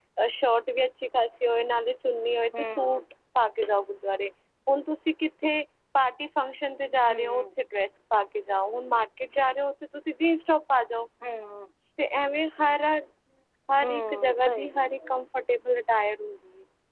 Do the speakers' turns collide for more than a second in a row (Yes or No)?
Yes